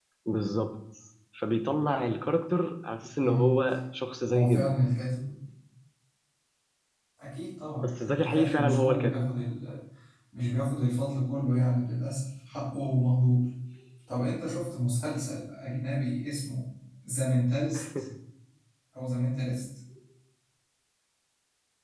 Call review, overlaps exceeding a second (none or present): present